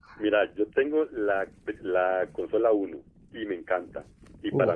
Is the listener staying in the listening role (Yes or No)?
Yes